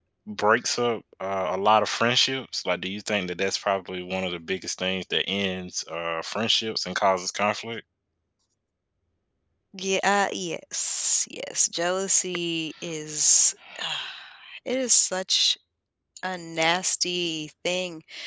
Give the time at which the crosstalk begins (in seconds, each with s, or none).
none